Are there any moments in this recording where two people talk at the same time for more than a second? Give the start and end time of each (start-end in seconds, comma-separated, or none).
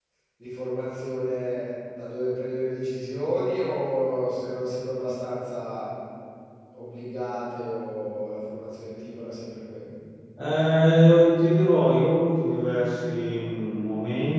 none